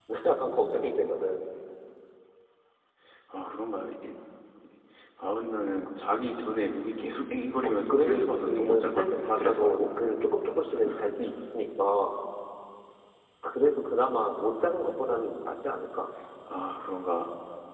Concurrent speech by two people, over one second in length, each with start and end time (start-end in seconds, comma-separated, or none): 7.6-9.8